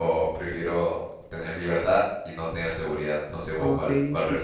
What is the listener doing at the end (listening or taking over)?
taking over